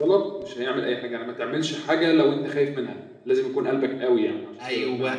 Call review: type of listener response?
taking over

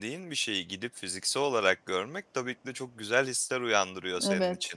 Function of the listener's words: listening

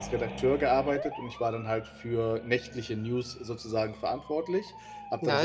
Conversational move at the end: taking over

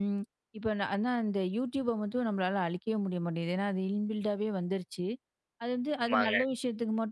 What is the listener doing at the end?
listening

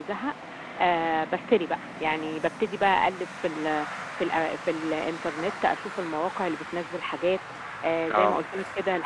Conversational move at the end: listening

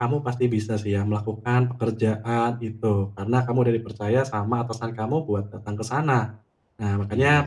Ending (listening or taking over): listening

